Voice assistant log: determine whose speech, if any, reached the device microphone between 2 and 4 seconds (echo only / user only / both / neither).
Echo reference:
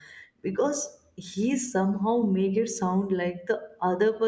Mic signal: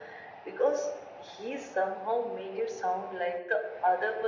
echo only